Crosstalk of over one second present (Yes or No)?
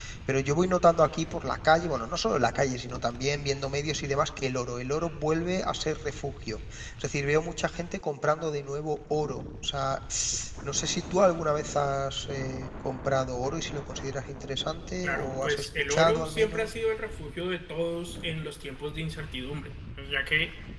Yes